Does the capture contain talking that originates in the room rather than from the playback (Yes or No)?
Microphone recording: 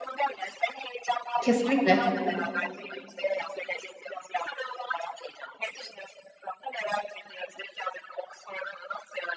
Yes